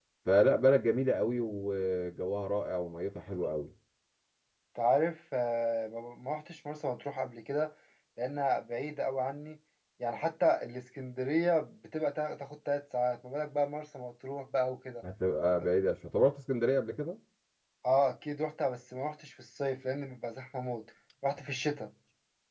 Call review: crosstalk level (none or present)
none